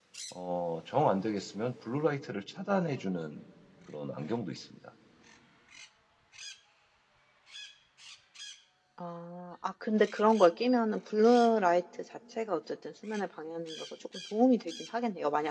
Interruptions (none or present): none